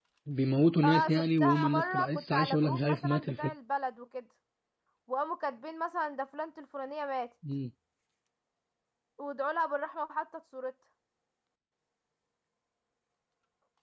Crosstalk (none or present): present